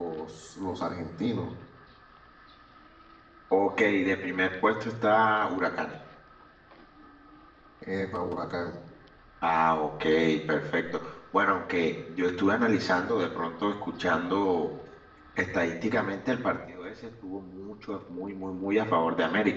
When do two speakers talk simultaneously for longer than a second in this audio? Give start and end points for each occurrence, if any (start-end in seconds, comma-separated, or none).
none